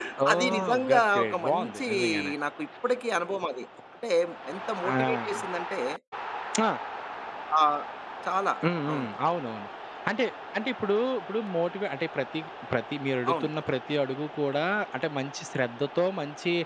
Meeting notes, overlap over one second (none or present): present